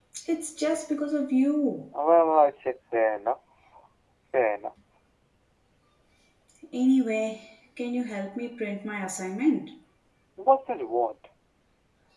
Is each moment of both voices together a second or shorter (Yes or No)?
Yes